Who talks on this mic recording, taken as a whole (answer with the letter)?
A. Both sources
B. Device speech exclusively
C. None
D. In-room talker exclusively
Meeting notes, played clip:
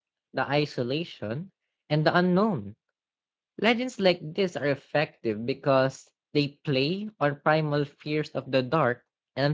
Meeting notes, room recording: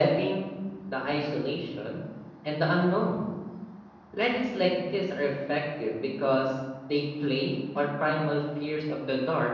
B